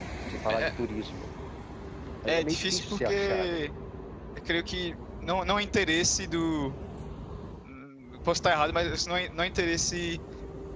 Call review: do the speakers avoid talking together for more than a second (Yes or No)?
No